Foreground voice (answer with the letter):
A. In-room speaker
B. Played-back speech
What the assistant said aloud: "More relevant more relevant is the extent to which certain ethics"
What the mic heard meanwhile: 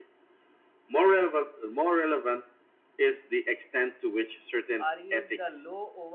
B